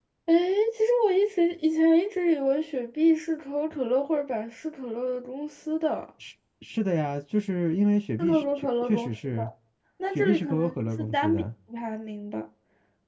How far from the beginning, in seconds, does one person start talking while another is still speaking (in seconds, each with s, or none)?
8.2 s